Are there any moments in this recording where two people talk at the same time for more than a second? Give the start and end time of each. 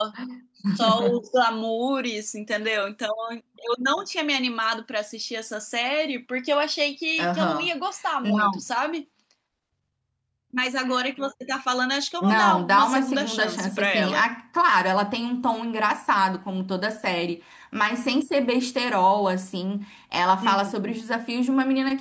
12.2-14.2

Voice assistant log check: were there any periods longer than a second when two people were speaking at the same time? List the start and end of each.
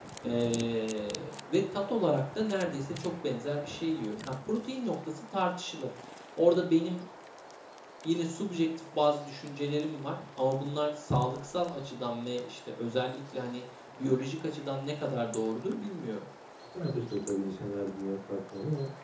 none

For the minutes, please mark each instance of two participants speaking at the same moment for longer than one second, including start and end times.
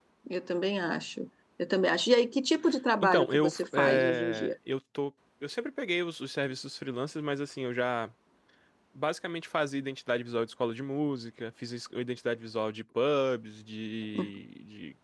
3.0-4.5

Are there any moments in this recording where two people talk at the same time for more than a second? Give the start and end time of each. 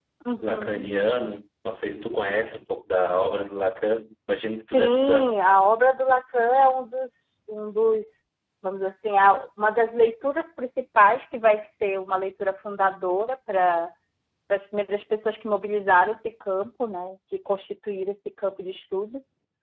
none

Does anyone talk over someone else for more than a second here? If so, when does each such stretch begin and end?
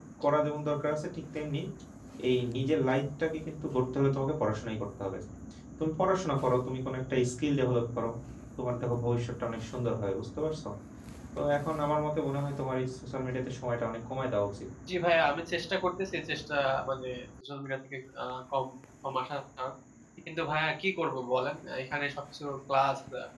none

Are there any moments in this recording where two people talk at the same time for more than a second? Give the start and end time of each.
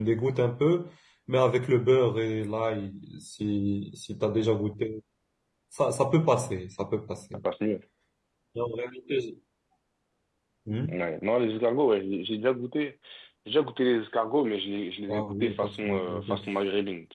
15.1-16.4

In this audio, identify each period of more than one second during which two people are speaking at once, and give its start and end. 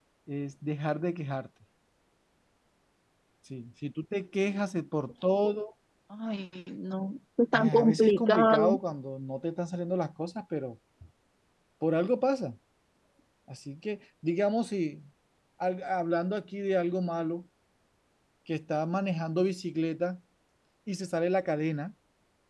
7.5-8.8

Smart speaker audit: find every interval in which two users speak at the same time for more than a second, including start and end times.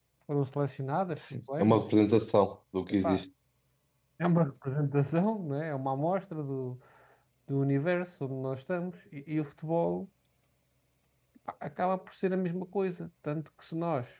none

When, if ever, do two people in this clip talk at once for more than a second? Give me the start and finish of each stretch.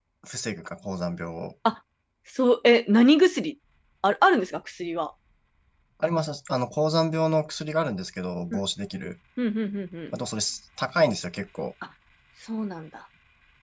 none

